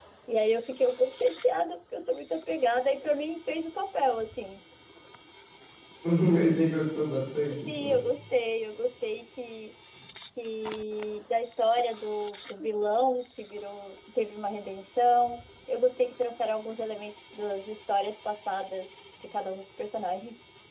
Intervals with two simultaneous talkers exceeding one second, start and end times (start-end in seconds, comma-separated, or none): none